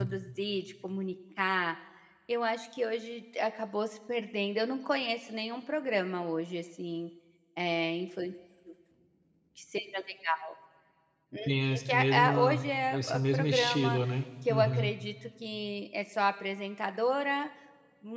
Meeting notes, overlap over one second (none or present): present